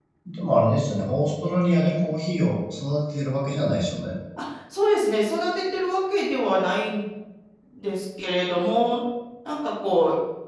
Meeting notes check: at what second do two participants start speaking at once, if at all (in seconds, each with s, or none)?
none